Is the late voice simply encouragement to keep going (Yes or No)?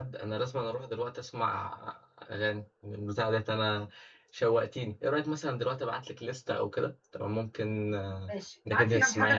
No